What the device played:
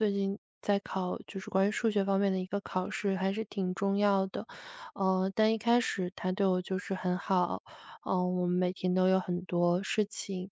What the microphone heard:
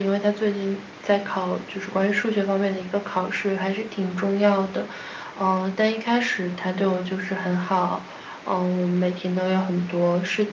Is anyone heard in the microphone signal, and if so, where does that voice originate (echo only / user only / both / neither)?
echo only